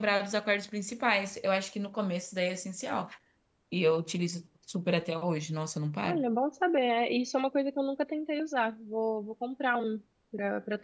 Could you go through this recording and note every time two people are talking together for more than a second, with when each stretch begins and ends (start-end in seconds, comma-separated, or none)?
none